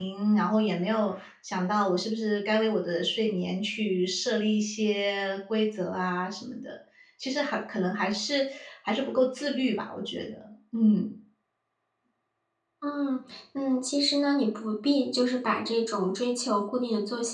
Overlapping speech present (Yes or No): No